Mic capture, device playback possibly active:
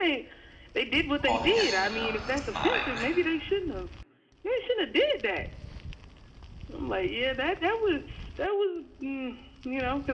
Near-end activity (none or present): present